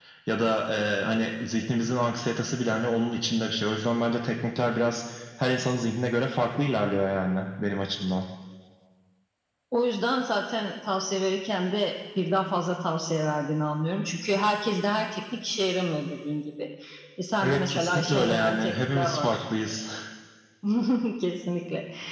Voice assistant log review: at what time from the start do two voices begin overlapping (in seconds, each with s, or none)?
17.4 s